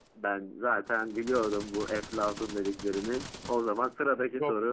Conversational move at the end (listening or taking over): taking over